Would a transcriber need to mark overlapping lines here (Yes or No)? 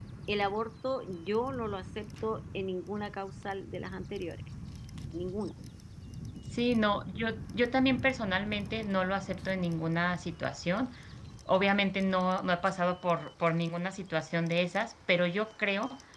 No